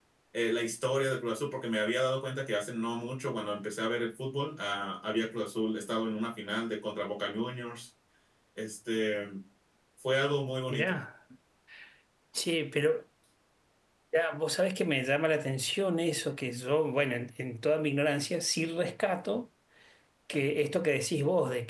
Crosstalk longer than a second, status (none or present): none